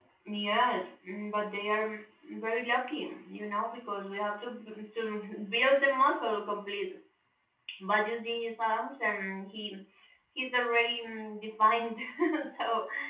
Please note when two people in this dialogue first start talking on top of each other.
none

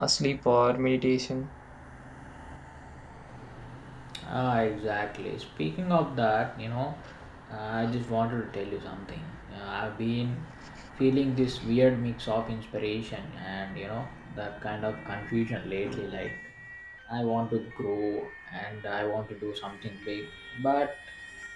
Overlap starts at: none

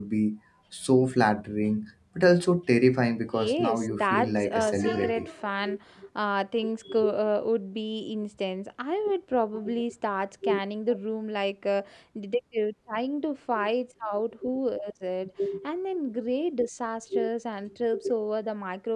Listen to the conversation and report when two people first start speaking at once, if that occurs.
3.3 s

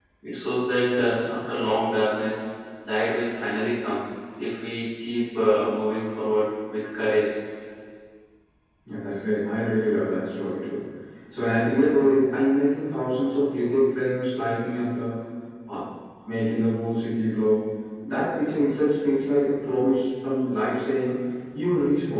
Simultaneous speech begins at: none

